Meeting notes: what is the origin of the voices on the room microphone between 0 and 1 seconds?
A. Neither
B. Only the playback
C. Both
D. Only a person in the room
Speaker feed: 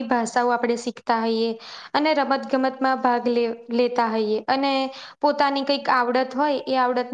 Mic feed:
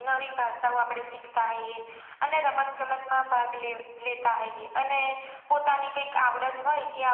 B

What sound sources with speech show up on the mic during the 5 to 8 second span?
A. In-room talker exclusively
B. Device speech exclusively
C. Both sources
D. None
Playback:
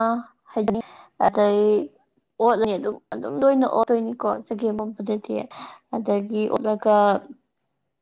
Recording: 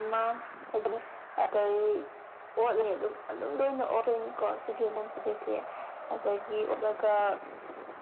B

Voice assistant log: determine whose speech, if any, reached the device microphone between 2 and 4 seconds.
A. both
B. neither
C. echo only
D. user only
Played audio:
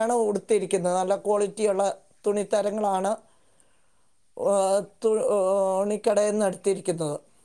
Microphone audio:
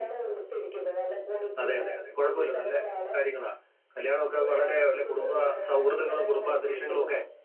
A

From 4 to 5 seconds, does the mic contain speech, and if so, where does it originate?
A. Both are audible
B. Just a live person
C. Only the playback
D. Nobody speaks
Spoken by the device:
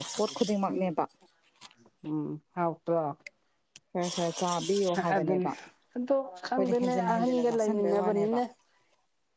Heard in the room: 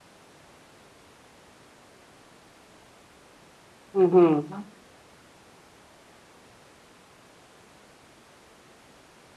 B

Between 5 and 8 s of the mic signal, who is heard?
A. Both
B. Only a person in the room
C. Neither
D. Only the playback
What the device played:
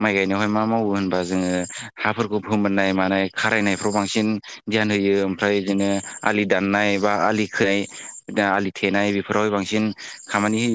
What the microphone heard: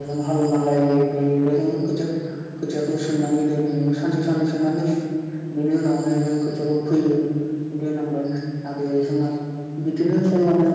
B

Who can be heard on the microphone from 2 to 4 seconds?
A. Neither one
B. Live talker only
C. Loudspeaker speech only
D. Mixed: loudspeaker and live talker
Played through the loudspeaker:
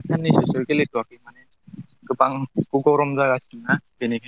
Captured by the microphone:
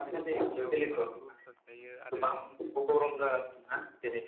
D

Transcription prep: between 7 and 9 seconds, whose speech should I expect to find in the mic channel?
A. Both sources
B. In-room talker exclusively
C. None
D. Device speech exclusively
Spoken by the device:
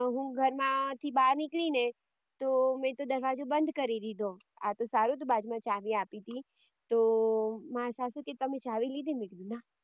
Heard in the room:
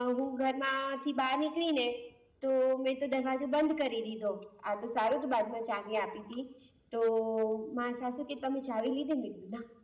D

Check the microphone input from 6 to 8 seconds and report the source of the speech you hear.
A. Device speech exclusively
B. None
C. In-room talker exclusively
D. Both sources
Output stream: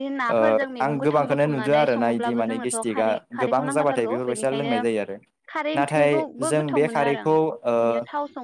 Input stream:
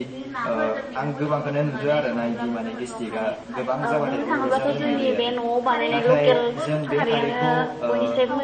D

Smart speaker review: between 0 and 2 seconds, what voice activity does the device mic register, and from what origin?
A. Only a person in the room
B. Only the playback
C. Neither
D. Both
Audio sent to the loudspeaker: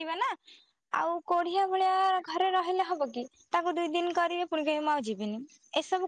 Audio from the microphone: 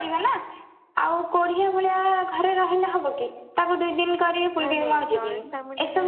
B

